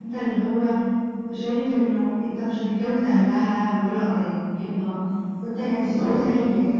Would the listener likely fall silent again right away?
Yes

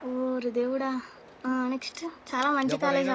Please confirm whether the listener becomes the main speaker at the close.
No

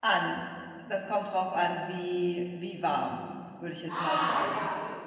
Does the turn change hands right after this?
Yes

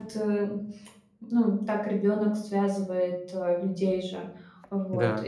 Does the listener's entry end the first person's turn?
No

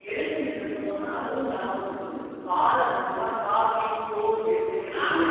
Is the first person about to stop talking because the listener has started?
Yes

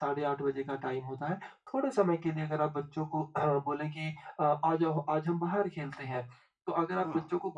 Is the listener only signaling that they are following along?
Yes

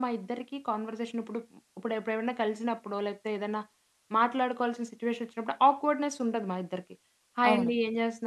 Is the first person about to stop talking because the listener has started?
No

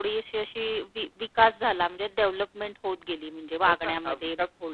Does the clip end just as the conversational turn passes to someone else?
Yes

